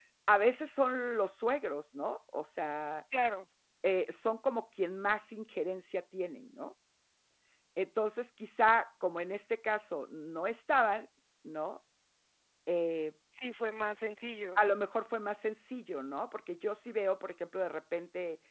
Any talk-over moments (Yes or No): No